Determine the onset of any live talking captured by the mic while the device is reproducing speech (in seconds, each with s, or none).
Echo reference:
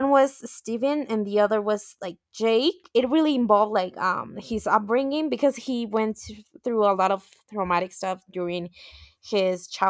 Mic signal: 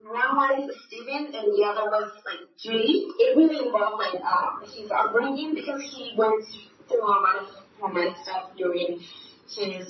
none